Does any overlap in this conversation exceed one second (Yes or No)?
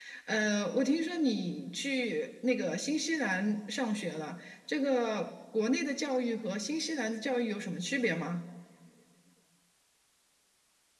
No